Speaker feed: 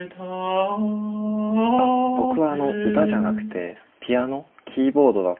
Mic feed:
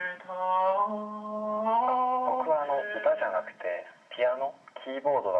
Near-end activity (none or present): none